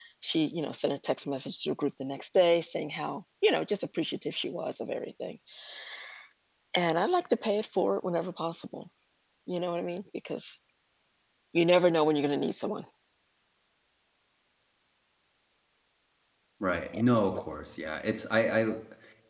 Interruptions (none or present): none